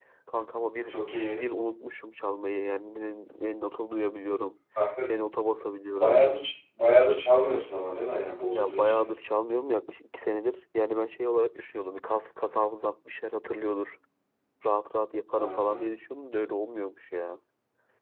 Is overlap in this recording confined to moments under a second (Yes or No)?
Yes